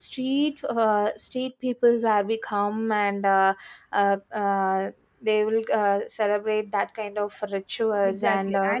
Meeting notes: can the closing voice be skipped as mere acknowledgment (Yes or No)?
No